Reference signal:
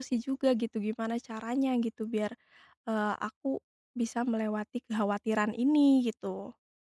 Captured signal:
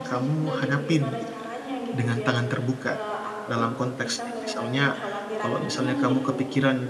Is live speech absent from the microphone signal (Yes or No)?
No